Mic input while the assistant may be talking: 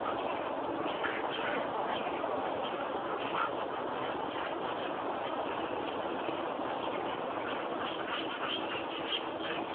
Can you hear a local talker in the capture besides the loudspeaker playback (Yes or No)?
No